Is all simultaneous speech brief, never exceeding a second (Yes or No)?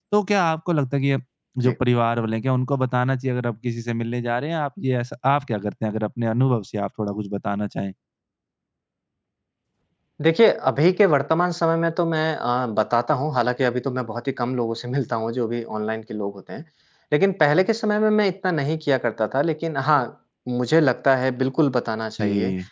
Yes